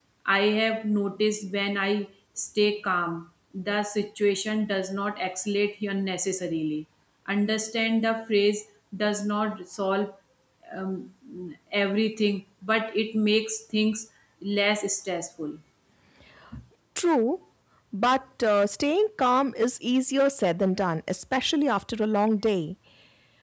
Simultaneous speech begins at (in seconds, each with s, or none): none